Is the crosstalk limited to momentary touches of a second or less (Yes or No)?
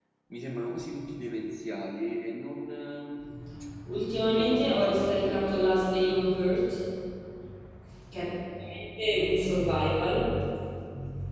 No